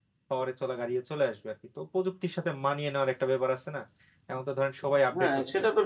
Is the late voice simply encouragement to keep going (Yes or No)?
No